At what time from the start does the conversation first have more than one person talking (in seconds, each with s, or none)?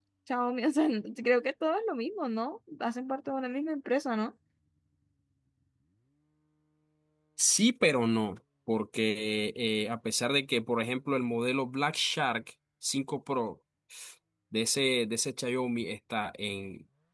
none